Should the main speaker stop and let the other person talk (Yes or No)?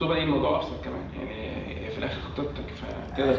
Yes